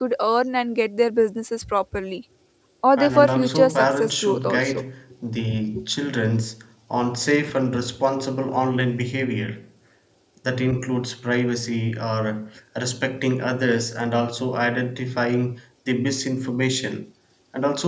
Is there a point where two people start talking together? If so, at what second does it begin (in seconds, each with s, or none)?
3.0 s